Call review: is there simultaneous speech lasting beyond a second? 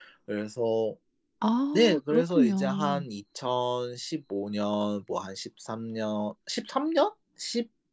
Yes, from 1.7 s

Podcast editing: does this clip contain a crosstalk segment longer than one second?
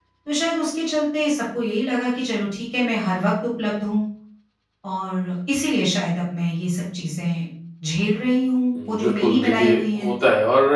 Yes, from 8.8 s

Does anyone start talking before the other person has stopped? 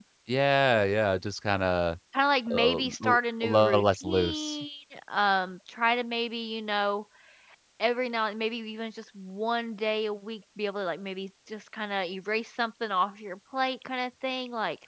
Yes, from 2.5 s

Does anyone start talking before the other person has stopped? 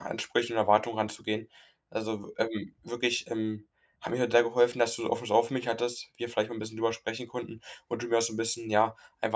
No

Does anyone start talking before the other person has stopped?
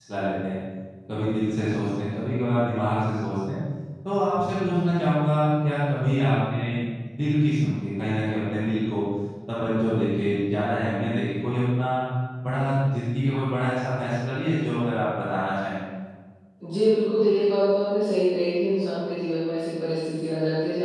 No

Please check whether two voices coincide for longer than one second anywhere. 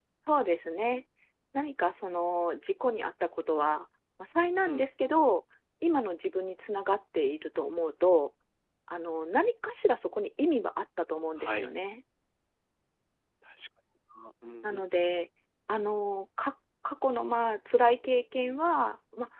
No

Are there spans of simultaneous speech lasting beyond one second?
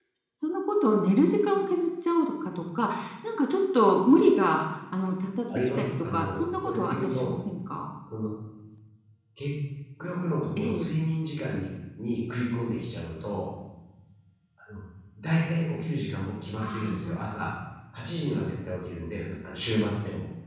Yes, from 5.8 s

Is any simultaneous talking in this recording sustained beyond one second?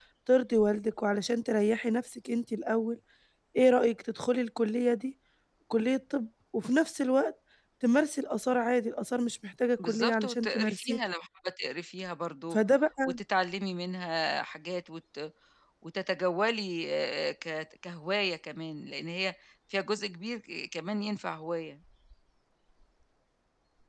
Yes, from 9.8 s

